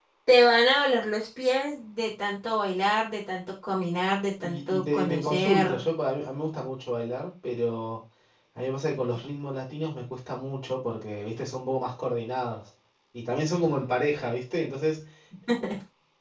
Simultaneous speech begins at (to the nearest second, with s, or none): 4 s